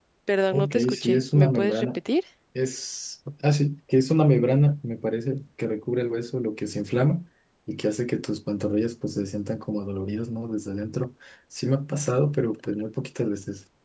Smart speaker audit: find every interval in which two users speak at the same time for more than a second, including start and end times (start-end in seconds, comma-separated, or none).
0.5-2.0